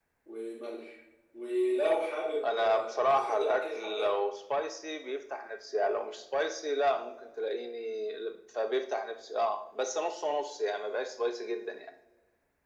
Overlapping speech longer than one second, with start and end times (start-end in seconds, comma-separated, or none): 2.4-4.1